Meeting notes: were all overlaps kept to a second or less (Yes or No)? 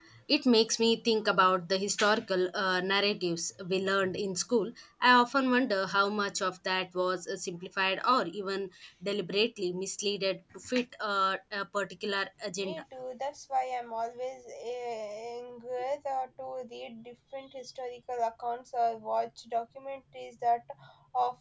Yes